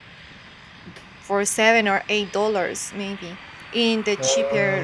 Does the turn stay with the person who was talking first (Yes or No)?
Yes